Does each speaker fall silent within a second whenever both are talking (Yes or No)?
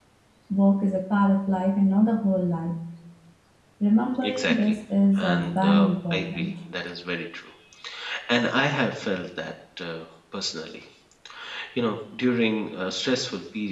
No